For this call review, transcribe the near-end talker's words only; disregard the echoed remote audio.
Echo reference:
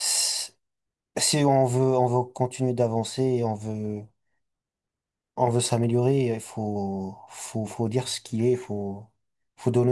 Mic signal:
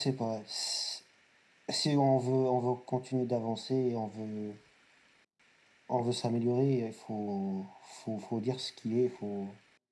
none

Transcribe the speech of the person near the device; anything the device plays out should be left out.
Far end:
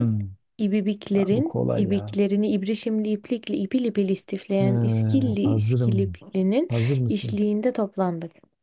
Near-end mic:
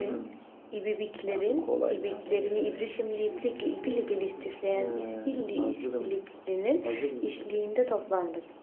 Öyle mi? He, işbirliğindeki değil mi o?

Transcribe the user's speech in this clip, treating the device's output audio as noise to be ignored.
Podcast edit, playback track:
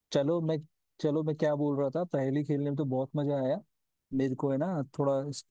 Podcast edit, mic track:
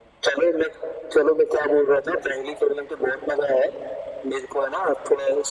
none

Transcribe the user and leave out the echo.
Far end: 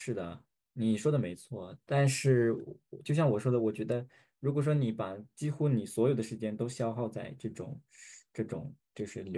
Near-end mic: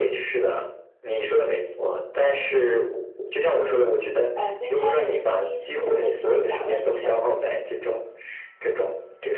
呃在看的一部剧是跟仙侠类有关的。

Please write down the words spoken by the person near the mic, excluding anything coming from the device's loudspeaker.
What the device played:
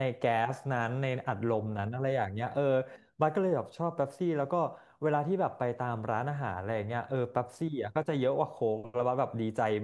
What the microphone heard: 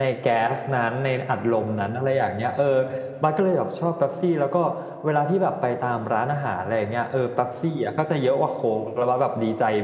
none

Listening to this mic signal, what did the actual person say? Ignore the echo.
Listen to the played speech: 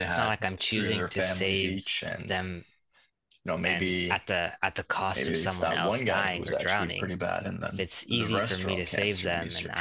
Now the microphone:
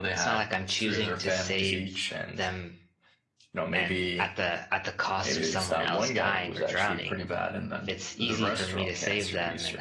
none

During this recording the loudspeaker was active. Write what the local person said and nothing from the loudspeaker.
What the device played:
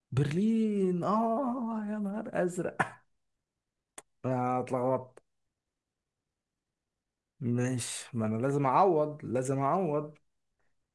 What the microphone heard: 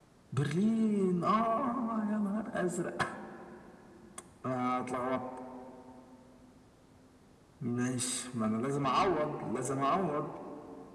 none

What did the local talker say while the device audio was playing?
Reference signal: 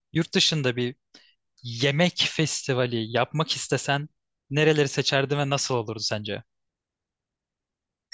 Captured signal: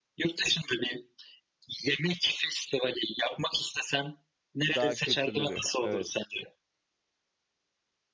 Daha kültürlü bir. Evet.

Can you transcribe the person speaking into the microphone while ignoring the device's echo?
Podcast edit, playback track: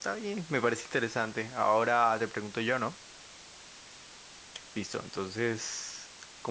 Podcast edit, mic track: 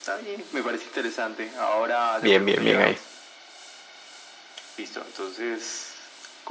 bien, bien, bien ahí.

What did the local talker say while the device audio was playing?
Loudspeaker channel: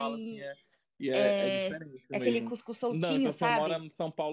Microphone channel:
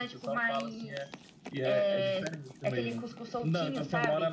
none

